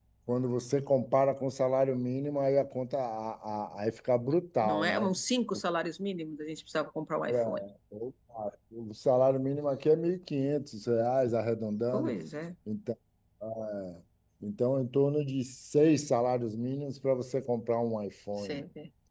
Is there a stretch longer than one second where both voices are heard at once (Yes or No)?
No